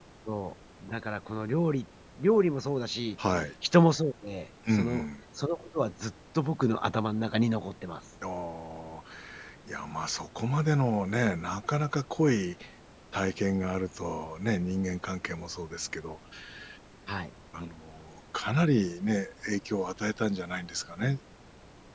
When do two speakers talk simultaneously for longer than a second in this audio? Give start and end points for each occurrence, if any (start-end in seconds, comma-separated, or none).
none